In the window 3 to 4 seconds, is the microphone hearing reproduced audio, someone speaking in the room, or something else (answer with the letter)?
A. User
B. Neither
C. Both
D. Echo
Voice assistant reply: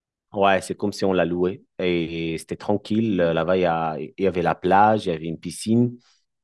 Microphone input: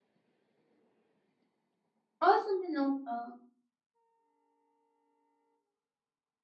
A